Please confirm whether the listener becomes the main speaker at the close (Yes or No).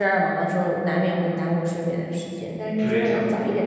No